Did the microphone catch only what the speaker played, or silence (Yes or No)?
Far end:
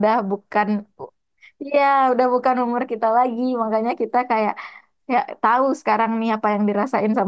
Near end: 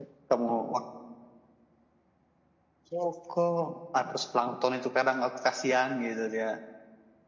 No